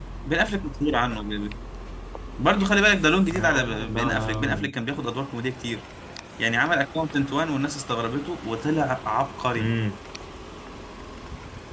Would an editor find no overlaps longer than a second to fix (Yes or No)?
No